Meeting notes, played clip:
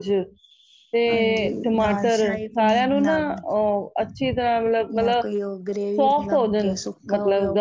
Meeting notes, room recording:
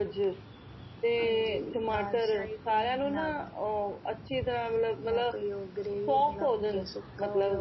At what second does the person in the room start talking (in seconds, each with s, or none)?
none